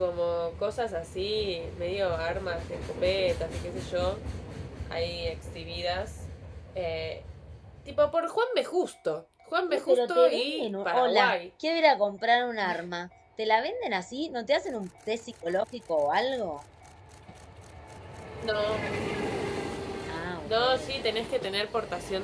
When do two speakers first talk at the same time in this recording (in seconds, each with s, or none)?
9.7 s